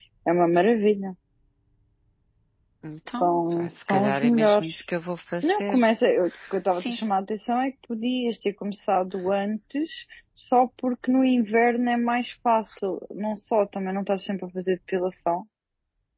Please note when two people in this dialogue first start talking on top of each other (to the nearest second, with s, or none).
3 s